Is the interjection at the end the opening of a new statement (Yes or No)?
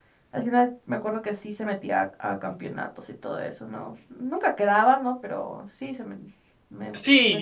Yes